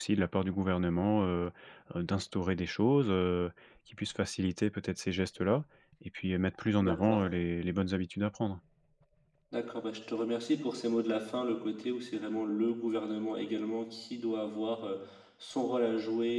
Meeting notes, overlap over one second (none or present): none